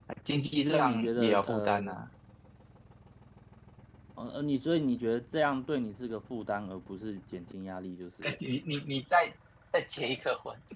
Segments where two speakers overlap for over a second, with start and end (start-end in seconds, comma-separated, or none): 0.6-2.0